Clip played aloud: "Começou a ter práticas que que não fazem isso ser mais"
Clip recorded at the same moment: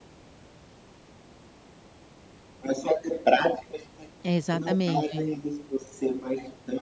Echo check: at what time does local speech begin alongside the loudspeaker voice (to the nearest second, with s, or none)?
4 s